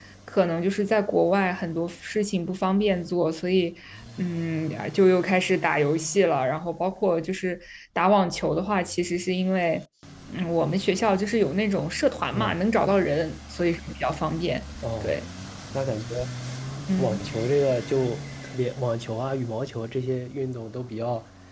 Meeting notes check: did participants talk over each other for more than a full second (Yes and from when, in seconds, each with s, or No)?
No